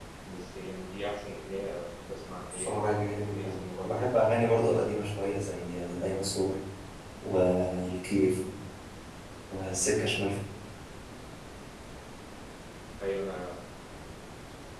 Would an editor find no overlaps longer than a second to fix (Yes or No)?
No